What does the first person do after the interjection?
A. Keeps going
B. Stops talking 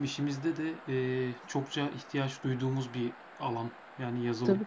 B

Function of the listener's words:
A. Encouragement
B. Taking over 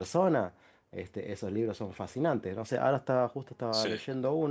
A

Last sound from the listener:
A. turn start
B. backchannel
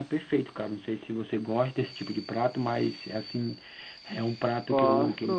A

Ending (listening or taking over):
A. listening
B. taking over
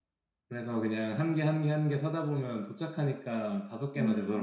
B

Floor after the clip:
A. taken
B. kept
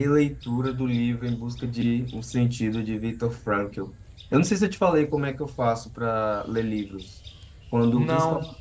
B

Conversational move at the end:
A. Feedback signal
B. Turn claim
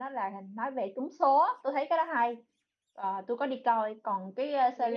A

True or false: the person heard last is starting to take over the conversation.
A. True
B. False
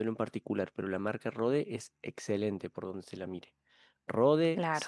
B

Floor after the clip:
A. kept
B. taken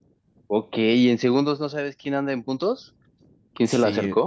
B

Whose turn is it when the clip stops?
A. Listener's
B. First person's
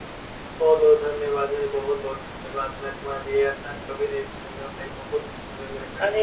A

